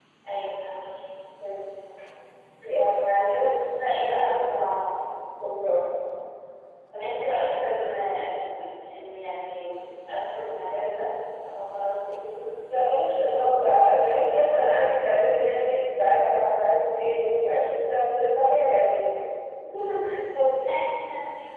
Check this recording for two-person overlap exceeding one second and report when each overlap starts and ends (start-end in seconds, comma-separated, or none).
none